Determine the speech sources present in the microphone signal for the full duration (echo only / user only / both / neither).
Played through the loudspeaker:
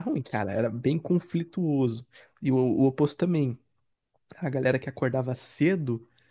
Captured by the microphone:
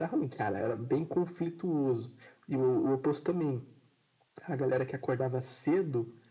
echo only